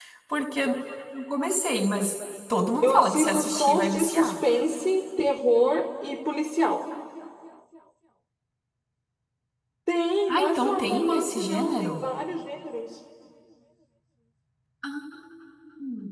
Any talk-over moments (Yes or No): Yes